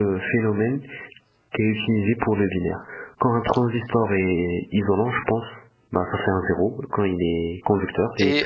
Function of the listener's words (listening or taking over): taking over